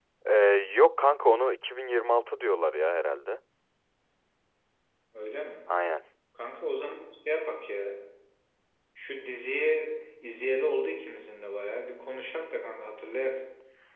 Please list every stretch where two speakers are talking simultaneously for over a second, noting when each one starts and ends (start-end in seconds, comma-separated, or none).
none